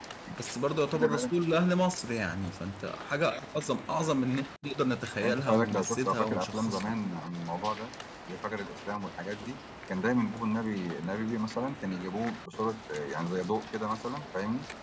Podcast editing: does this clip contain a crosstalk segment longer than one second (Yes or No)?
Yes